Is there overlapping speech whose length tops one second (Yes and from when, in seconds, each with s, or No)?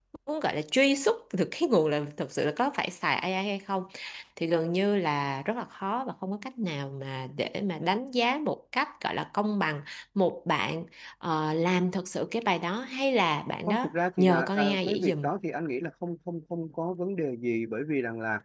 Yes, from 13.7 s